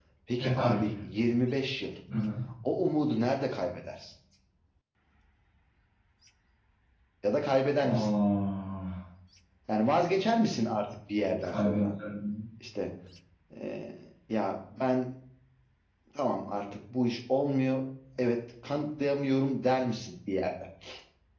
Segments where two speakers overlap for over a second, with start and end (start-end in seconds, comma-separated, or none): none